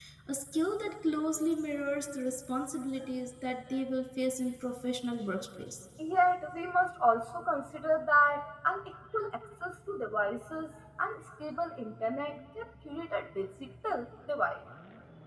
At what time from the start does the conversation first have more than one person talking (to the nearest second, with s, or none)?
none